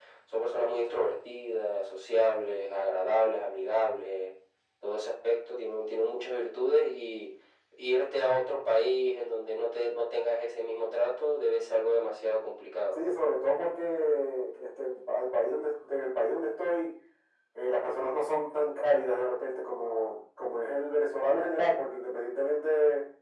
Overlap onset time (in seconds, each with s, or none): none